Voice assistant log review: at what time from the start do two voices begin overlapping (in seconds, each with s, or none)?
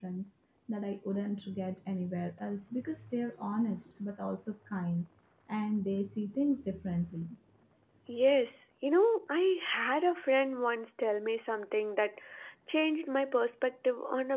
none